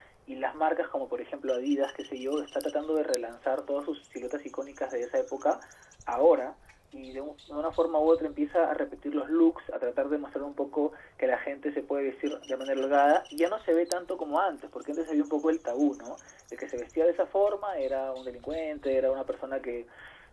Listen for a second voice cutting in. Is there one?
No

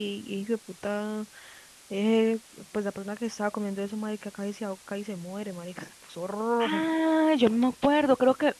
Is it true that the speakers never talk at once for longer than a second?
Yes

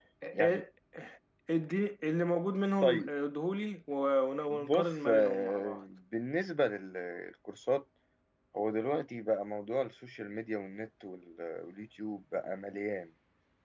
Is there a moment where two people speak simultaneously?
Yes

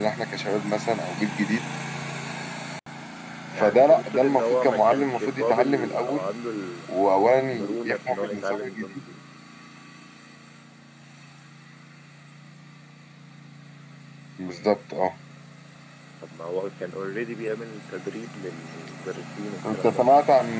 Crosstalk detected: Yes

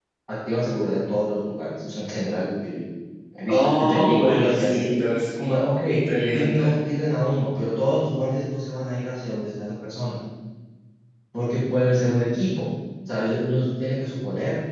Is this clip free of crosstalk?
No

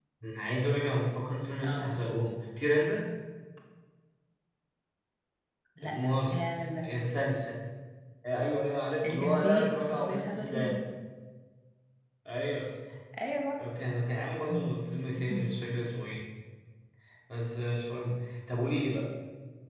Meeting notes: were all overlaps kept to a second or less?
No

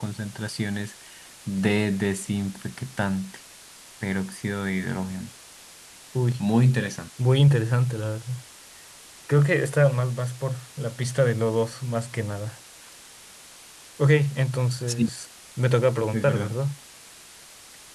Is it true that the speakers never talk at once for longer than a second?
Yes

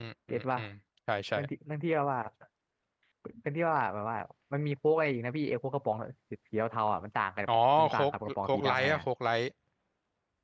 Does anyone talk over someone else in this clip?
Yes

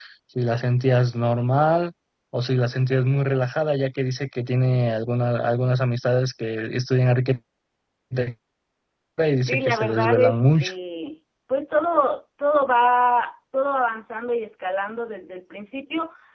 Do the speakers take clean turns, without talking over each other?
No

